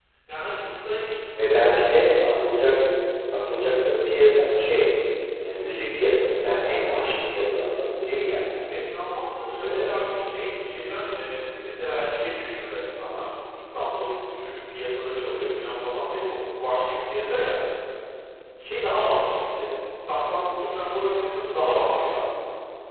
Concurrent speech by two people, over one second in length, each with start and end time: none

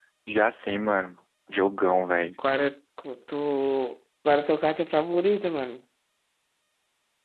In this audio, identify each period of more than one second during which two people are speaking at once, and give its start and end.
none

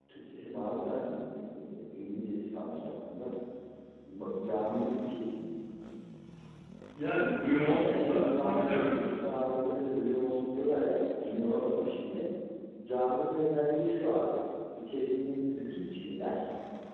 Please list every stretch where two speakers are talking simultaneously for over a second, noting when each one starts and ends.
7.8-9.1

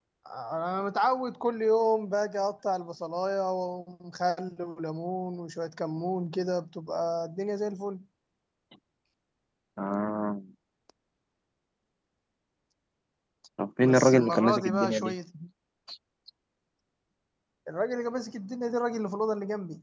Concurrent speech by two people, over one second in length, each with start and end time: 13.8-15.1

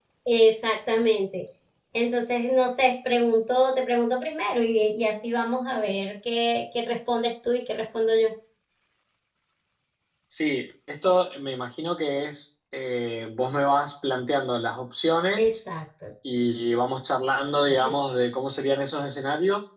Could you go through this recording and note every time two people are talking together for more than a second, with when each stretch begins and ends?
none

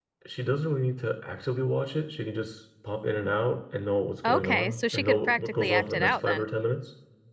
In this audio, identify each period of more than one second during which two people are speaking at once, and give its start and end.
4.2-6.5

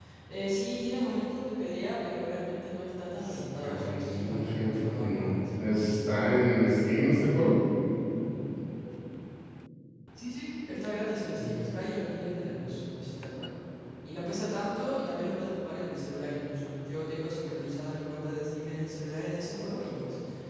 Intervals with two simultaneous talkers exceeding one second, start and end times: 3.2-5.4

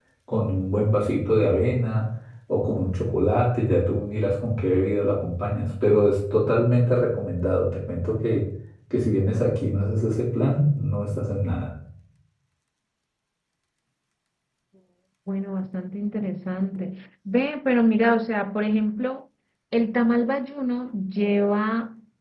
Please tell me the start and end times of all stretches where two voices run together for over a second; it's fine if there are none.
none

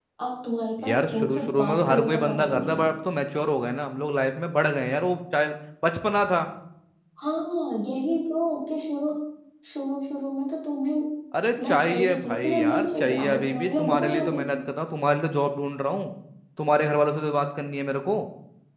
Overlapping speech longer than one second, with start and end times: 0.9-2.9, 11.7-14.6

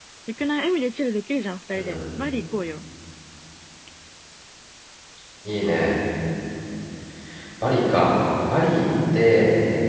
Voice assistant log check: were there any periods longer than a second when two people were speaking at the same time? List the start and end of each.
none

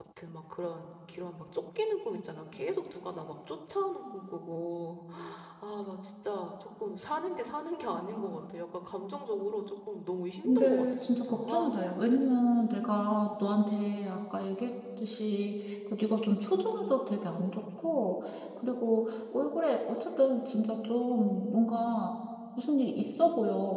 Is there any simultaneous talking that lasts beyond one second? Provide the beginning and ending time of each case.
10.4-11.8

